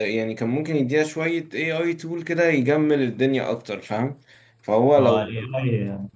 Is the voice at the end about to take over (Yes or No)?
Yes